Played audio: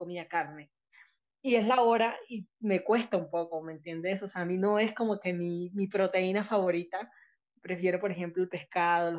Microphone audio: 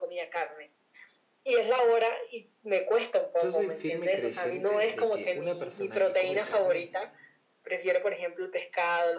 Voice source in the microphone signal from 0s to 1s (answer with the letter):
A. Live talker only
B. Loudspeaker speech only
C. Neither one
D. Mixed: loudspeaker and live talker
B